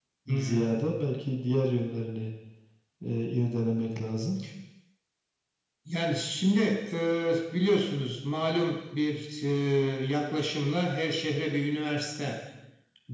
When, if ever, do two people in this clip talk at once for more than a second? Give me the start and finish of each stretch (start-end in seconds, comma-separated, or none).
none